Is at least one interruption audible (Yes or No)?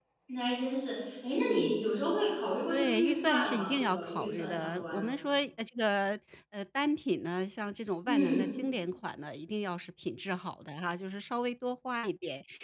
Yes